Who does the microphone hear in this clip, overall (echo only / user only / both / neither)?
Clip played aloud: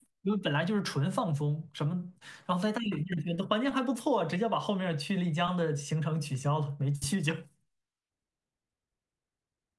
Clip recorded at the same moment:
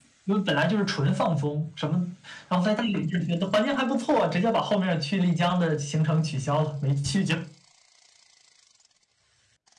echo only